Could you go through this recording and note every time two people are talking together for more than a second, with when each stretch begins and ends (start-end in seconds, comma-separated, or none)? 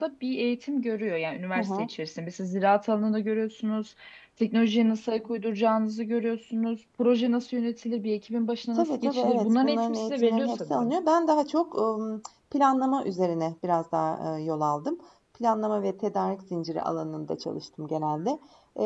8.8-10.9